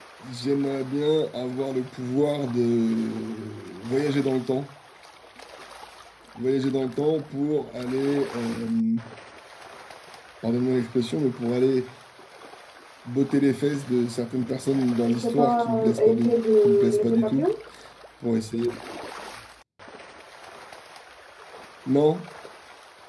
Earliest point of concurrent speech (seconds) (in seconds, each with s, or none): 15.0 s